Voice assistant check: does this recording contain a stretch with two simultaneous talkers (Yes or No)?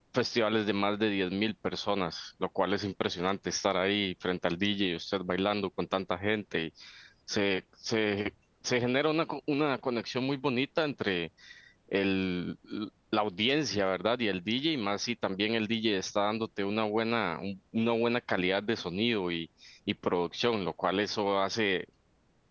No